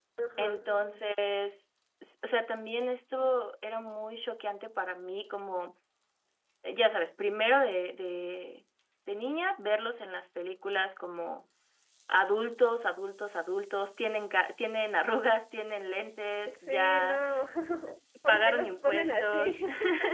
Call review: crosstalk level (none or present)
present